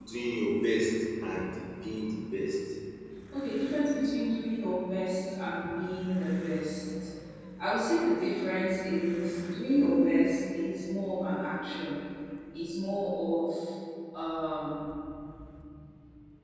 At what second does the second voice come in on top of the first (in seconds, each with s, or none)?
none